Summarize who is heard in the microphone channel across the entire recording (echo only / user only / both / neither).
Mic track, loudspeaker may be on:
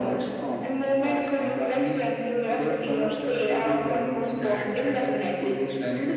echo only